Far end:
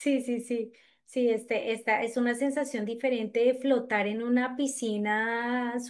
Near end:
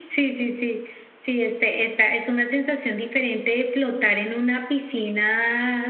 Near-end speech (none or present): none